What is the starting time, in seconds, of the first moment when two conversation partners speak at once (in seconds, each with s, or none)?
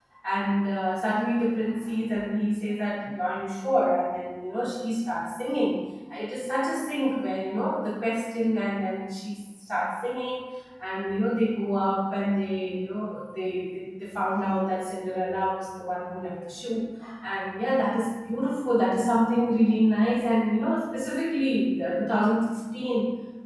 none